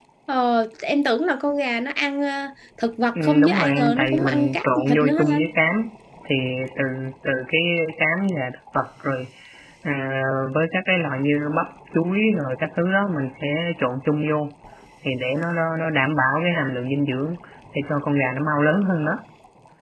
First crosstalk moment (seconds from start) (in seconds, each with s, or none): 3.2 s